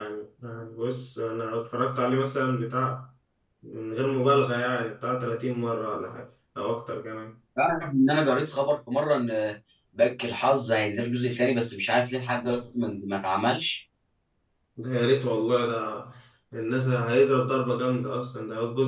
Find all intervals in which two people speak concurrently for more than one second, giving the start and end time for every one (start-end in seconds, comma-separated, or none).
none